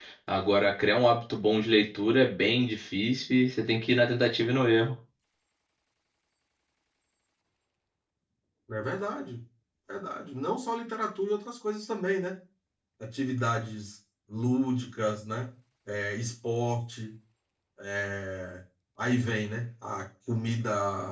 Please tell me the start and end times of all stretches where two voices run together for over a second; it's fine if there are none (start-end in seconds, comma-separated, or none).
none